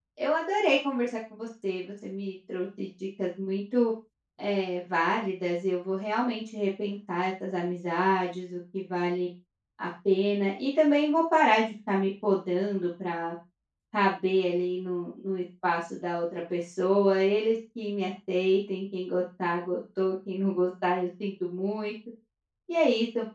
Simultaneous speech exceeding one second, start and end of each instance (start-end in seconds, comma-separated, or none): none